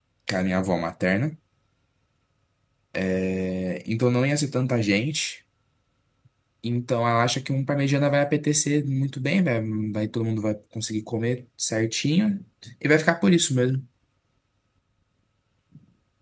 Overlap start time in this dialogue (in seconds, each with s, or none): none